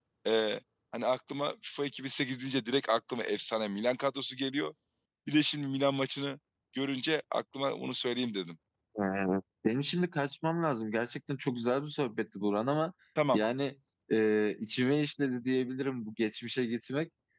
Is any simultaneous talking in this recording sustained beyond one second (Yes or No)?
No